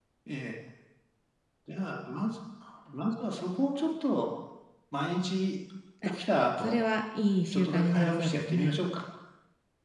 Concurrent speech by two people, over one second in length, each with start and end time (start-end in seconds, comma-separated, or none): 7.5-8.8